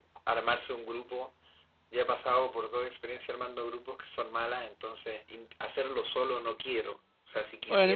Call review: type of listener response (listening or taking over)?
taking over